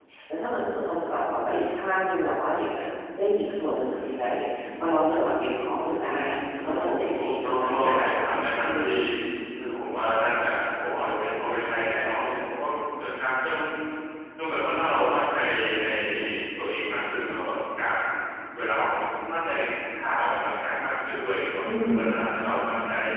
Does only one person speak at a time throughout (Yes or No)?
No